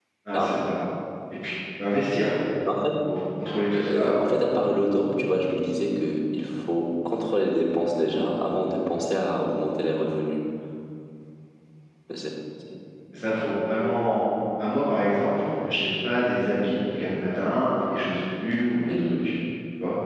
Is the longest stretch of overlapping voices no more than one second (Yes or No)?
Yes